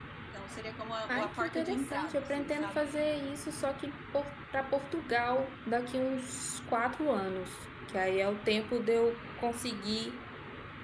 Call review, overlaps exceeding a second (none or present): present